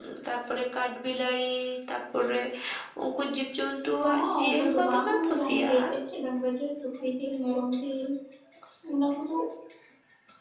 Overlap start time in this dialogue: 4.0 s

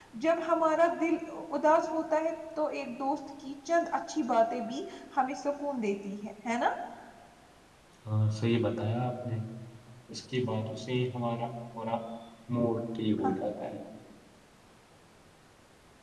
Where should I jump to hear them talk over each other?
none

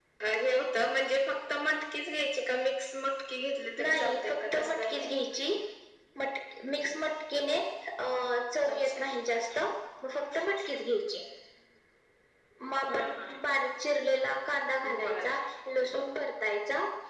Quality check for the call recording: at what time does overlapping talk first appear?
3.8 s

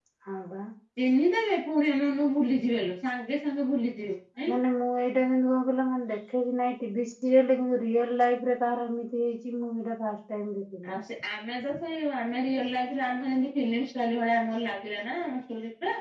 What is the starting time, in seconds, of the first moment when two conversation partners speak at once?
none

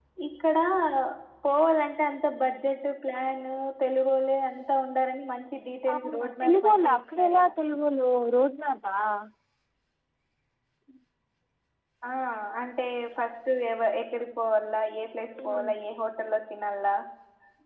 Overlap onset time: 5.9 s

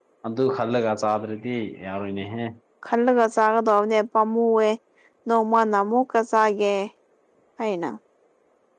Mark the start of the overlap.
none

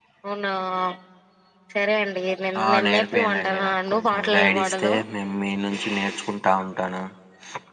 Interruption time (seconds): 2.6 s

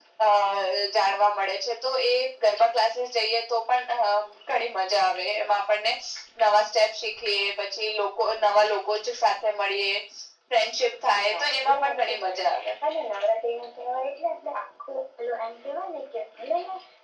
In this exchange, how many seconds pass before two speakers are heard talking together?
11.3 s

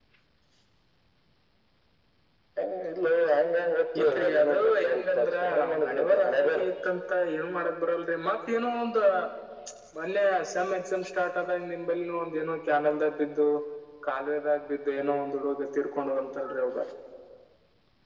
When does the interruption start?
4.0 s

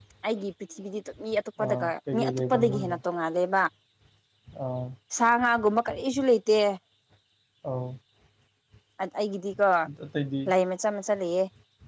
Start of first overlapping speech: 1.6 s

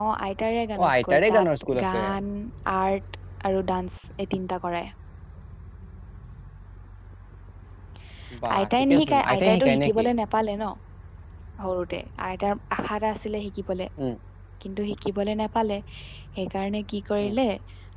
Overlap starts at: 0.8 s

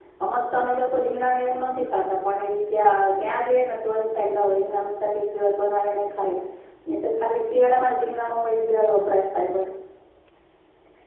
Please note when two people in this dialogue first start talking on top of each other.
none

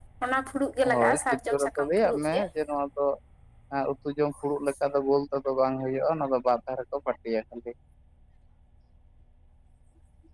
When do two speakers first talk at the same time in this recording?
0.8 s

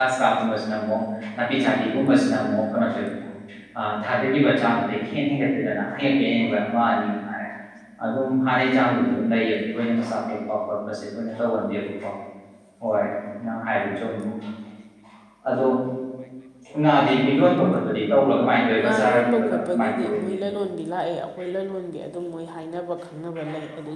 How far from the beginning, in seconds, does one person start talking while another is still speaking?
18.8 s

